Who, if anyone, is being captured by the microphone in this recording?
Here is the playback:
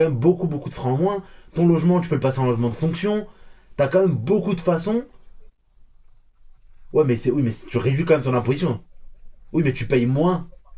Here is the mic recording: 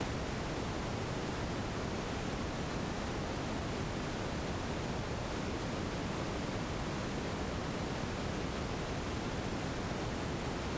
neither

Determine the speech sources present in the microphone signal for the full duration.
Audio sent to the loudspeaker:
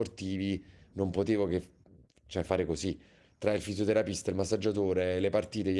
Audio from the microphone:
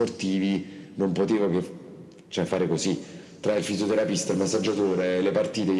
echo only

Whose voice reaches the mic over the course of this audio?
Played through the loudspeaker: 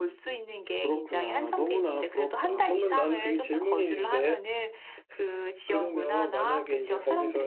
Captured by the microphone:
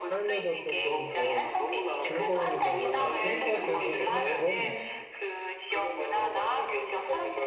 both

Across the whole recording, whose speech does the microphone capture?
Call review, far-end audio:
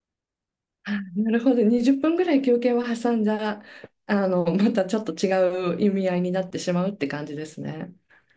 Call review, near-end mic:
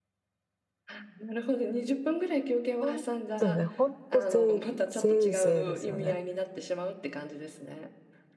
both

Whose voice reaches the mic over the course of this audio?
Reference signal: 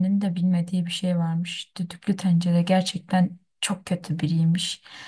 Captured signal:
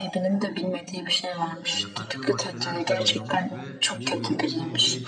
both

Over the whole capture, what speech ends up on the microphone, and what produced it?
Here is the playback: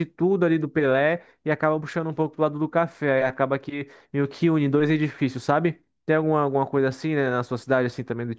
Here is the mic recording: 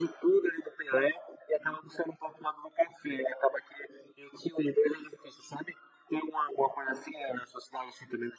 echo only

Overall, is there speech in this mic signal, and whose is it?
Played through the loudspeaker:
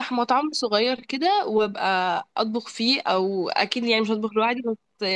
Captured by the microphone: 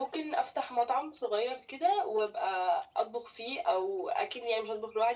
echo only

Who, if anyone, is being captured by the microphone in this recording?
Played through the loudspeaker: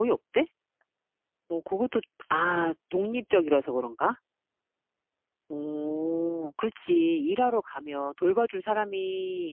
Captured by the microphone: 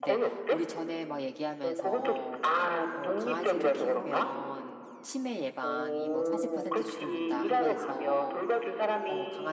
both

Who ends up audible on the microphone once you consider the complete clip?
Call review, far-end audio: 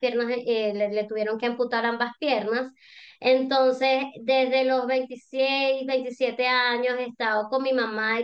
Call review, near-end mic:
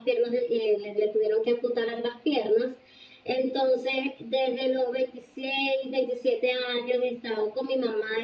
echo only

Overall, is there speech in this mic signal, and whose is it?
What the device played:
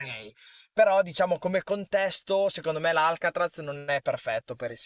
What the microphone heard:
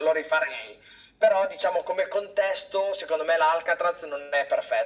echo only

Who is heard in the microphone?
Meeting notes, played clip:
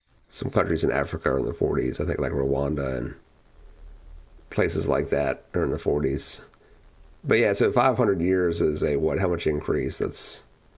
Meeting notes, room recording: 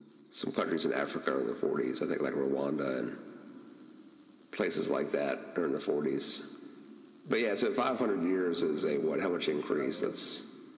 both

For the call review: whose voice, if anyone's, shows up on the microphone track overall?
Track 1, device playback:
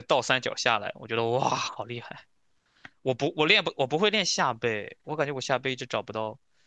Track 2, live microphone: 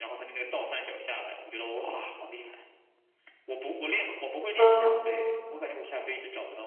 both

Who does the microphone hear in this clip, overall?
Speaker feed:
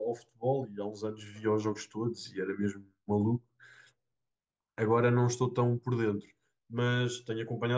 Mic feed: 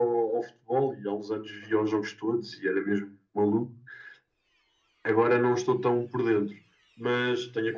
echo only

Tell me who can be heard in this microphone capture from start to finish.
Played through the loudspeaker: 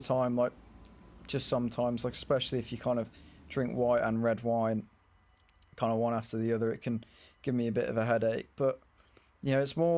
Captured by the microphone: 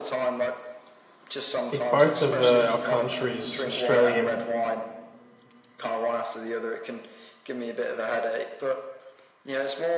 both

